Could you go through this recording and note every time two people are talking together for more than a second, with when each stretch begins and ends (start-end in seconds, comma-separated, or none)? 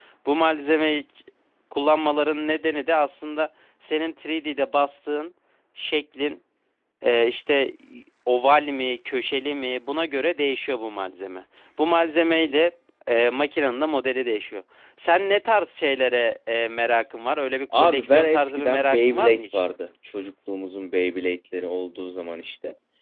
17.7-19.6